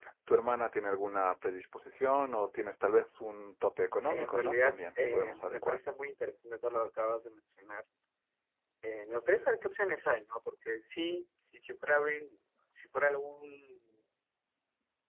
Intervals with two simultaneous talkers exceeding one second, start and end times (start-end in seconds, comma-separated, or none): 4.0-5.8